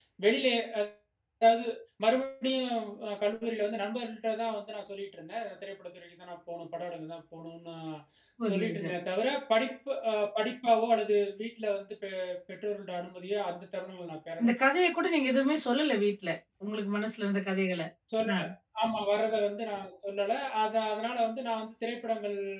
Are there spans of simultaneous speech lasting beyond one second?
No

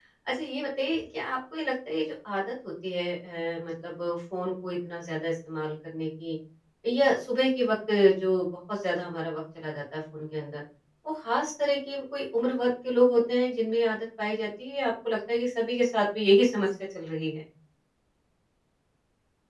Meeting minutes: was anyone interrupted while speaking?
No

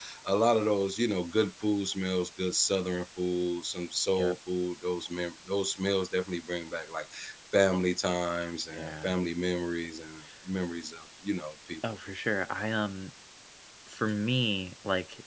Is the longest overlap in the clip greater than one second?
No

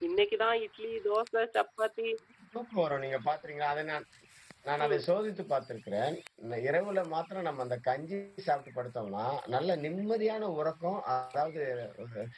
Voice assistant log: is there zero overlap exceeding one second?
Yes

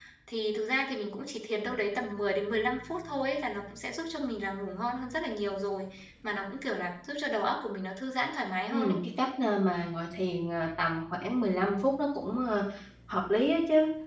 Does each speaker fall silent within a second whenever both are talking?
Yes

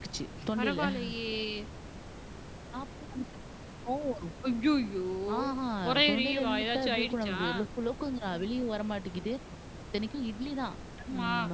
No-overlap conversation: No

